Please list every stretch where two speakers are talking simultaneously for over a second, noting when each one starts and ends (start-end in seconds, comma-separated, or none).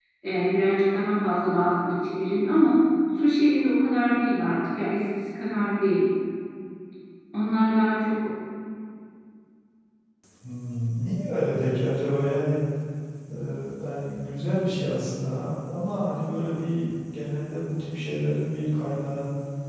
none